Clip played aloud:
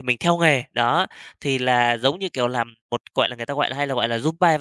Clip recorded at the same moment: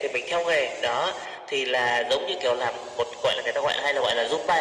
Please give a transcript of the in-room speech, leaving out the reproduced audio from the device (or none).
none